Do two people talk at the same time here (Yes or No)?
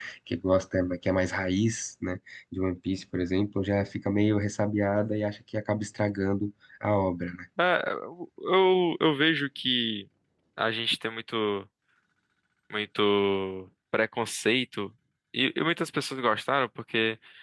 No